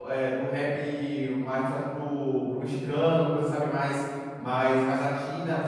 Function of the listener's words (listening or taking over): listening